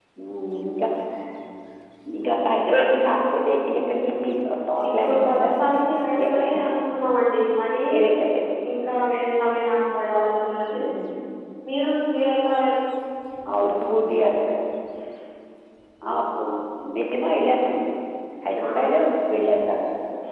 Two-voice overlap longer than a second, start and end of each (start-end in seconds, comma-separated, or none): none